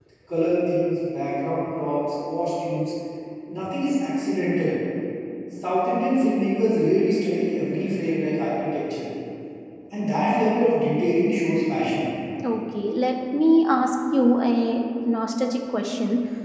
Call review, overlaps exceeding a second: none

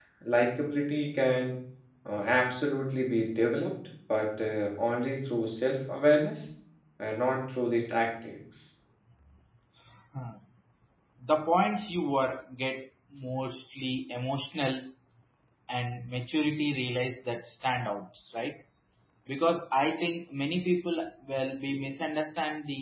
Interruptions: none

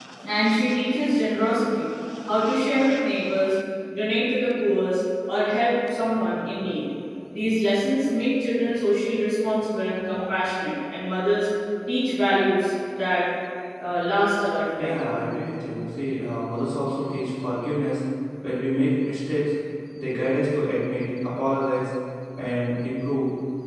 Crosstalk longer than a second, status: none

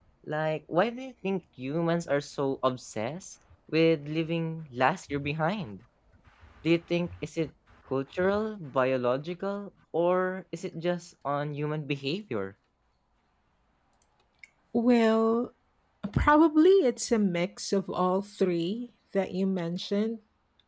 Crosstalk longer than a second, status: none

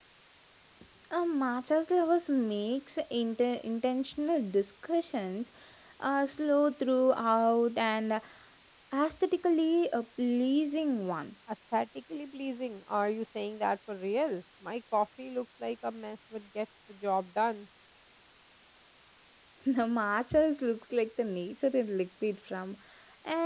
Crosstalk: none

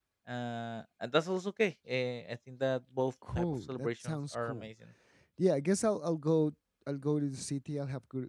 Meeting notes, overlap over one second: present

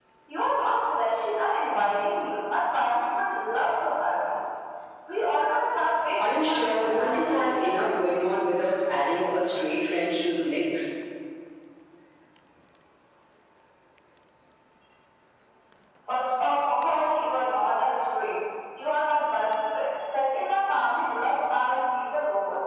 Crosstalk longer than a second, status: present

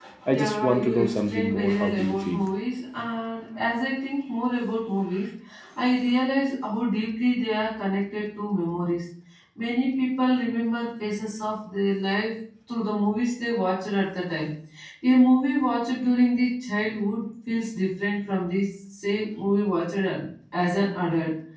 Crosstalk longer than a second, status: present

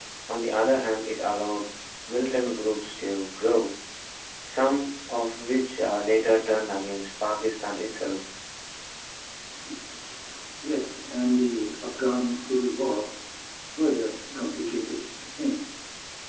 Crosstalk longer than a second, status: none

